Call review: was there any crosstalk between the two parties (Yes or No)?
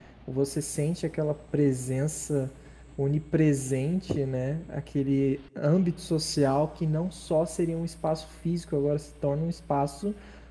No